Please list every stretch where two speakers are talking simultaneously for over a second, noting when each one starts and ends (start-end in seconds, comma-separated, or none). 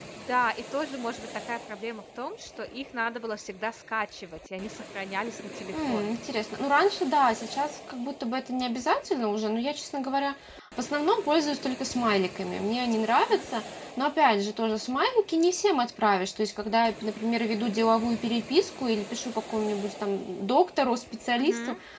none